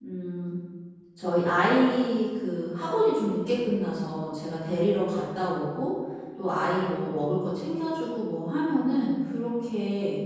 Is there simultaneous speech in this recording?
No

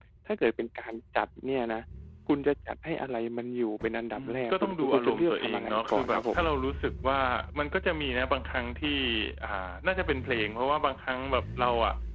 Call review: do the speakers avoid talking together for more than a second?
No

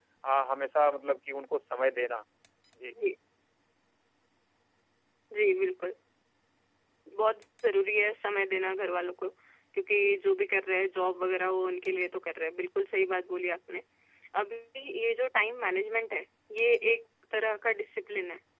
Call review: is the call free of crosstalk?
Yes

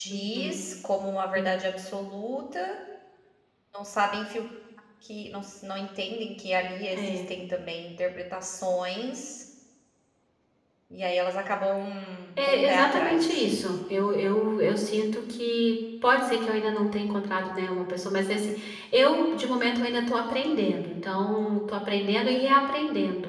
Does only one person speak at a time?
No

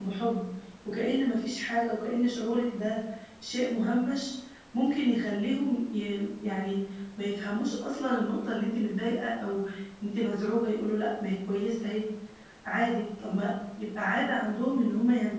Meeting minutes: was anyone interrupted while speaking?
No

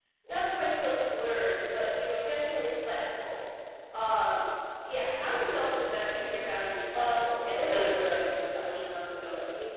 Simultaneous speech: Yes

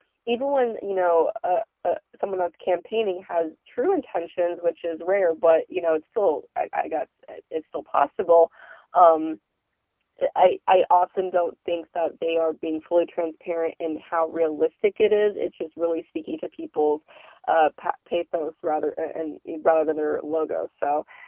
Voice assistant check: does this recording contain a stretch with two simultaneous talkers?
No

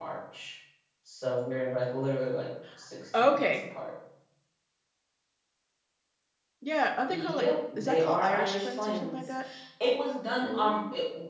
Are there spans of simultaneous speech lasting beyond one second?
Yes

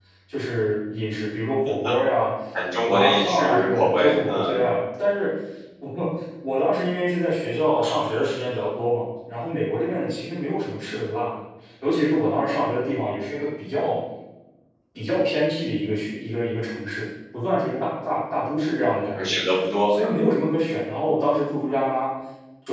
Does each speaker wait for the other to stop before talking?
No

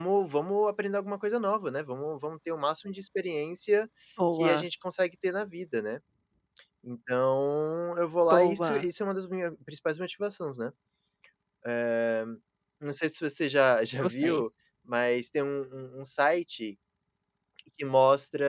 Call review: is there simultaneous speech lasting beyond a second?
No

